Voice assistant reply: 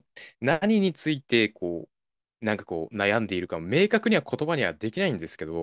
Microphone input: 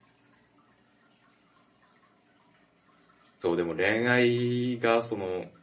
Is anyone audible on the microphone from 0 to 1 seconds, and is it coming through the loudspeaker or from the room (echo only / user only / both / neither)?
neither